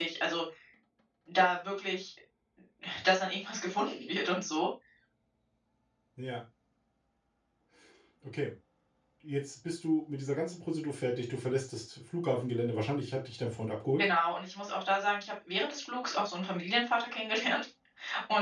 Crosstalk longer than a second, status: none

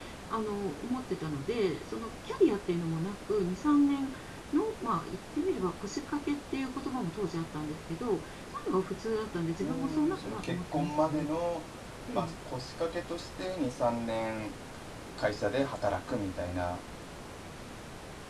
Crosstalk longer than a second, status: present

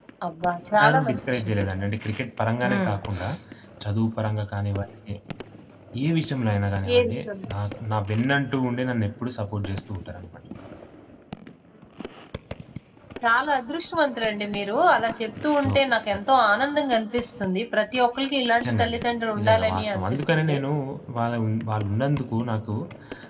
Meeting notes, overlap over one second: present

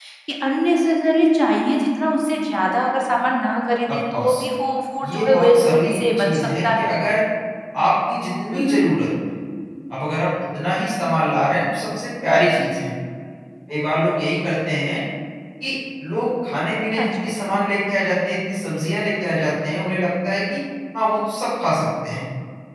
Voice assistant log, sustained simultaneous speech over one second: present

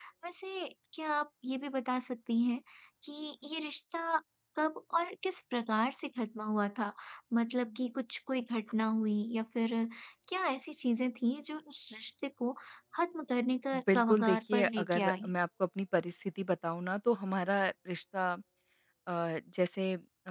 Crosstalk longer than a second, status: present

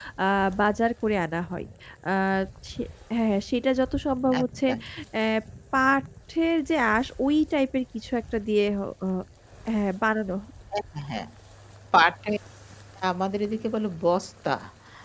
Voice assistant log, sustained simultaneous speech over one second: none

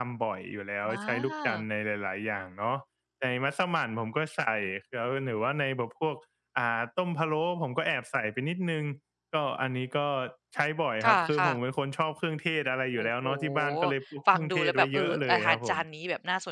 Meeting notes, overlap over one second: present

